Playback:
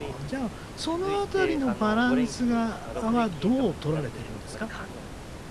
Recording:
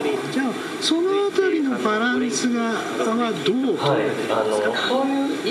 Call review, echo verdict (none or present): present